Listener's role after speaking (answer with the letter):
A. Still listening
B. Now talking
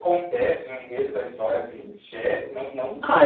B